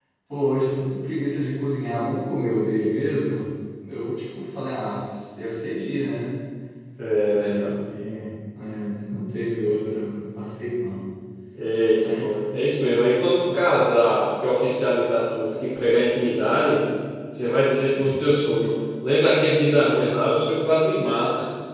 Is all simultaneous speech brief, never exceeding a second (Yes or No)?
Yes